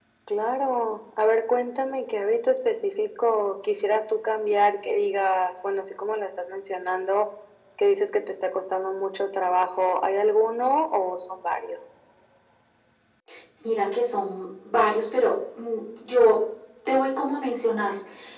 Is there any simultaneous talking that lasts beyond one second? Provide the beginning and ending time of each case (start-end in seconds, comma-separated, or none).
none